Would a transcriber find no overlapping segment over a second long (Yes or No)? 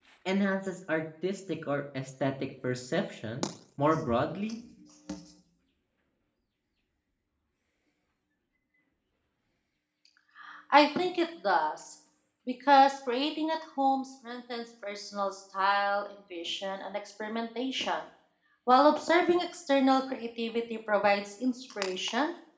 Yes